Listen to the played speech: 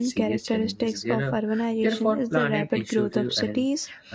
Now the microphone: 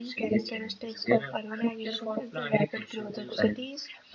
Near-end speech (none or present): none